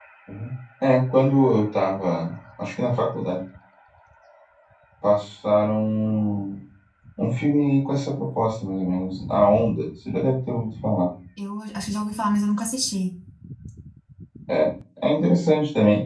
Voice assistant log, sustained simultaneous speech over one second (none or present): none